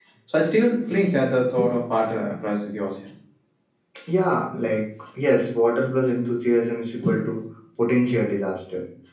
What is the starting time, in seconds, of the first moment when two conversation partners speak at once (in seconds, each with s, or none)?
none